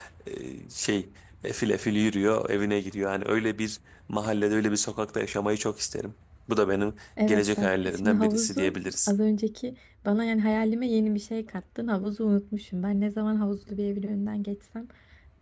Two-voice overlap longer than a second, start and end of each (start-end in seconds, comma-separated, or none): 7.3-9.1